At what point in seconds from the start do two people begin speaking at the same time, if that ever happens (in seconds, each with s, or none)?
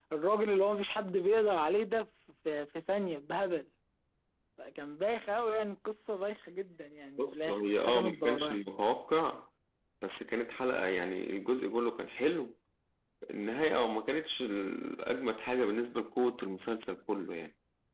7.2 s